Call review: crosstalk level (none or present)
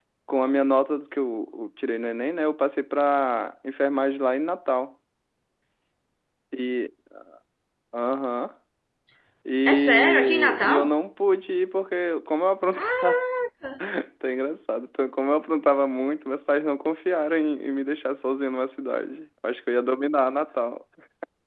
present